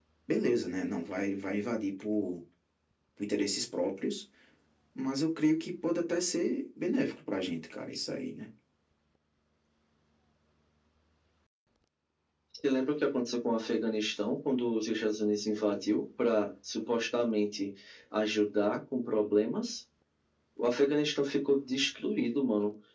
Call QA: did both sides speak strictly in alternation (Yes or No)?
Yes